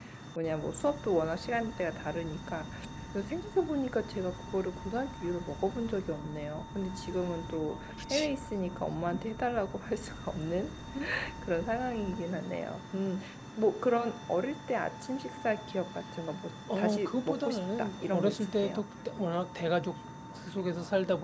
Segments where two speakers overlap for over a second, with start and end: 16.8-18.8

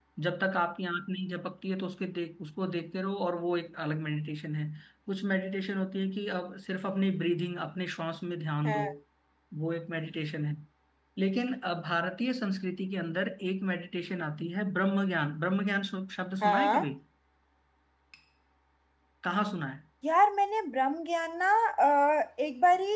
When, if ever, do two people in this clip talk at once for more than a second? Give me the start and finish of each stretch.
none

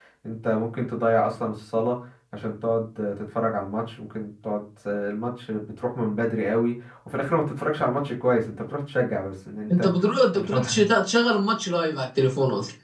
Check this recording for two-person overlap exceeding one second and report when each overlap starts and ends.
none

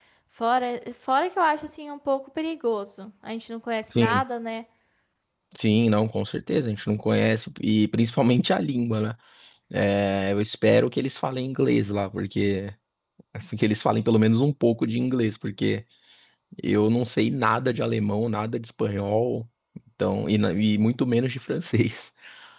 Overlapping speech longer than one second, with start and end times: none

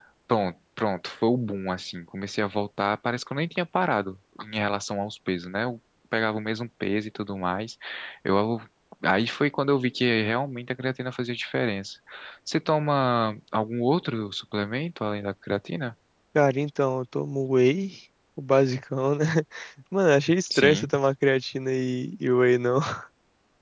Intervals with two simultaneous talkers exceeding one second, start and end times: none

